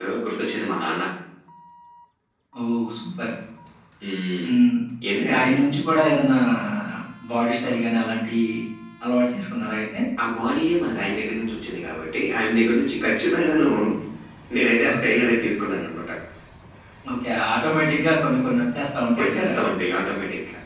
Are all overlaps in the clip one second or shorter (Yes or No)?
Yes